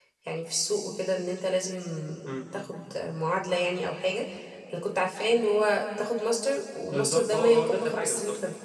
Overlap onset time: 7 s

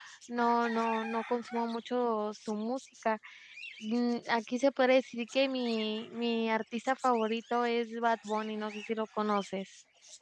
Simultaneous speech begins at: none

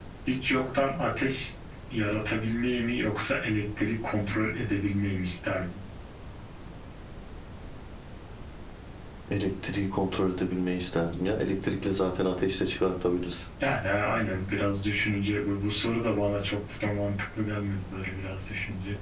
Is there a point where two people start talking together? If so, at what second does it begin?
none

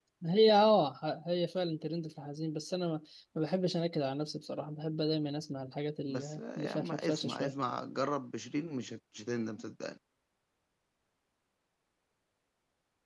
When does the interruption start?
6 s

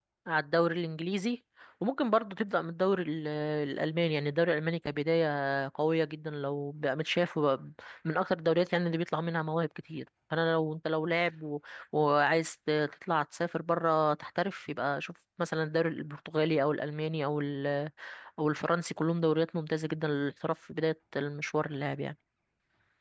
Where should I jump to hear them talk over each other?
none

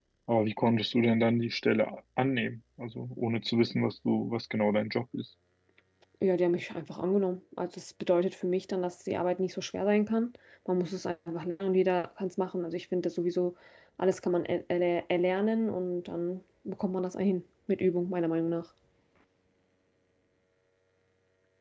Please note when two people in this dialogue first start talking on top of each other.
none

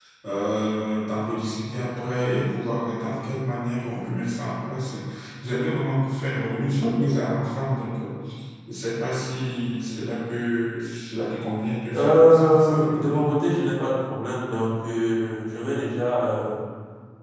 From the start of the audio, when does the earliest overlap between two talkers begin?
12 s

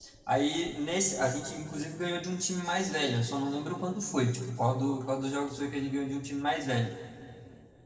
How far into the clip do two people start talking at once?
none

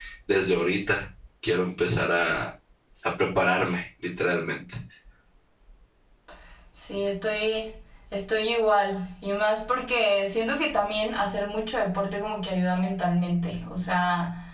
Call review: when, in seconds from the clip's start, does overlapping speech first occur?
none

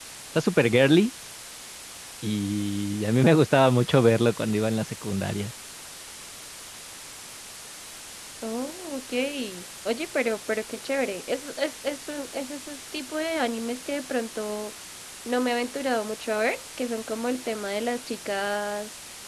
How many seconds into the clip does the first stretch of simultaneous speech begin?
none

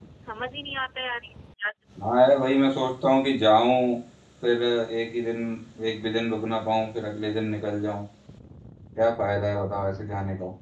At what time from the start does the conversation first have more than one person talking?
none

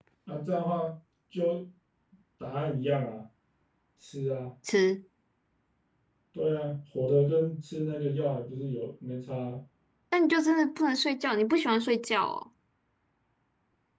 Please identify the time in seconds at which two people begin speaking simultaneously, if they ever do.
none

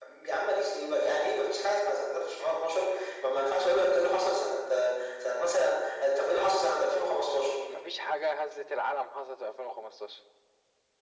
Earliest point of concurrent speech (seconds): none

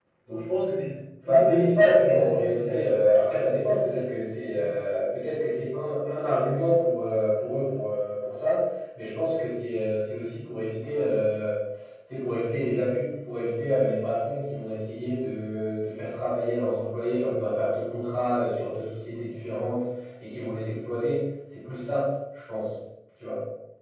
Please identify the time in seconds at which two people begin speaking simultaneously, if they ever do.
1 s

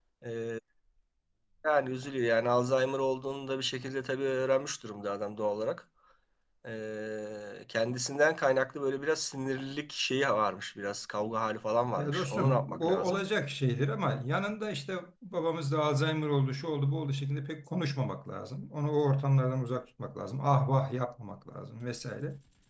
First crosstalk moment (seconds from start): 12 s

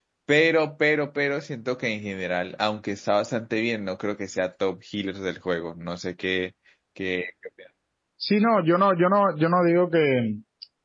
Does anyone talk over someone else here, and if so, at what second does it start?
none

